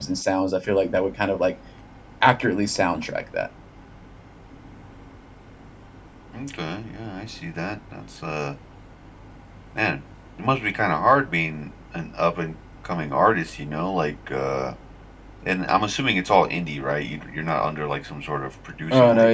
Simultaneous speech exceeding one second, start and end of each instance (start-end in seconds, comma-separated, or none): none